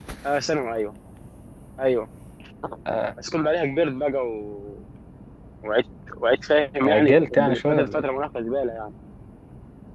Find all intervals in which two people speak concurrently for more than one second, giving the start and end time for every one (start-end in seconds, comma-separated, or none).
6.8-8.0